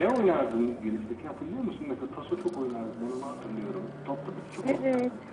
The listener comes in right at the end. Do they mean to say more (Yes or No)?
Yes